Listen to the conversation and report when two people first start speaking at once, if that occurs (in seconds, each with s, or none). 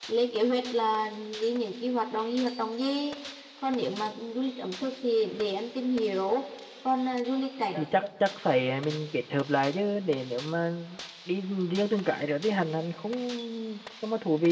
none